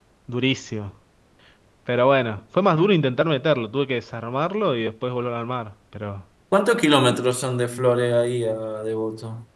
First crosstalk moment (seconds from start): none

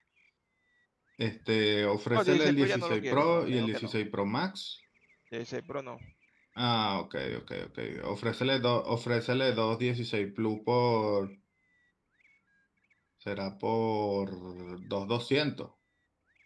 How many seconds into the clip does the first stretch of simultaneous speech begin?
2 s

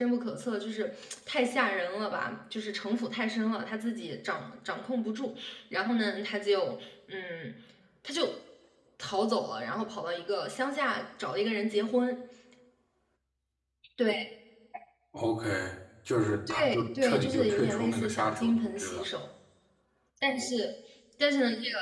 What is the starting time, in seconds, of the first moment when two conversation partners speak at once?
16 s

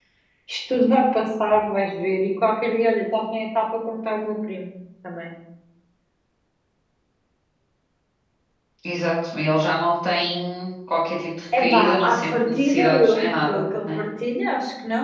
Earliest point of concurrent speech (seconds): 12 s

